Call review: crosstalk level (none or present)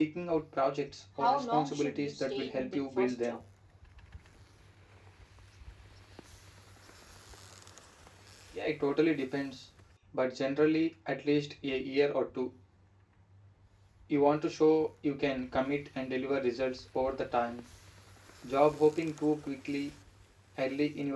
present